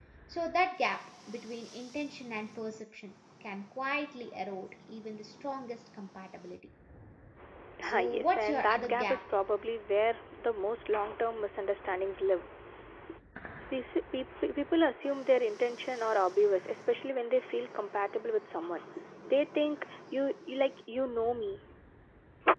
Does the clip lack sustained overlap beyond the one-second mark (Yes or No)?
No